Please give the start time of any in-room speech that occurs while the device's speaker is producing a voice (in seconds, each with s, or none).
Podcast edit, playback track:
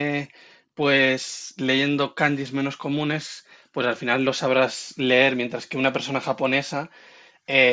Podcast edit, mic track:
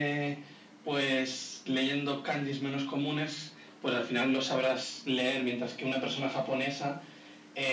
none